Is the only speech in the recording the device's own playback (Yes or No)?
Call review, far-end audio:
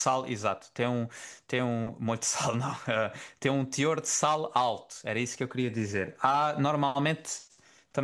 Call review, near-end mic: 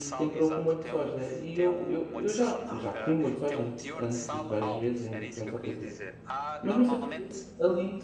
No